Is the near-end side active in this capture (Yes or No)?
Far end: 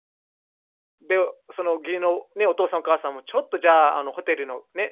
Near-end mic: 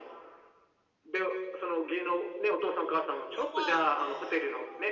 Yes